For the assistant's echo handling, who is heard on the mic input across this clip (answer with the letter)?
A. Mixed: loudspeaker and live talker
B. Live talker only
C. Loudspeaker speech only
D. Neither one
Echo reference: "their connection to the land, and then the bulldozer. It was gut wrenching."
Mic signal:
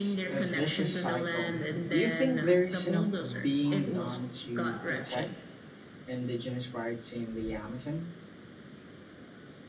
A